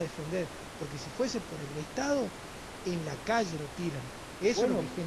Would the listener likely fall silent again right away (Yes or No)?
No